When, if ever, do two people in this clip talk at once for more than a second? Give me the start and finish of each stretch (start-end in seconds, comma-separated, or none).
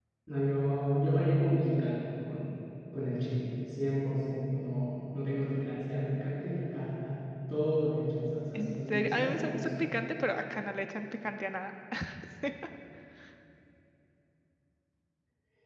8.6-9.8